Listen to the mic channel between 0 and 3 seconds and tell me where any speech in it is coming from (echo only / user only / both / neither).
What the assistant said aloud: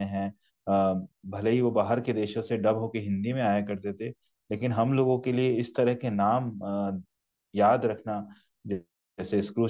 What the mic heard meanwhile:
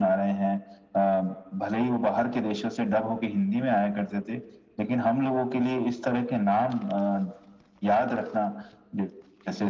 echo only